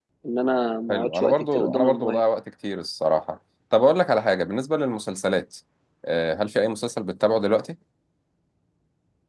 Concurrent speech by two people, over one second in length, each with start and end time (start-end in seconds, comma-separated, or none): 0.9-2.2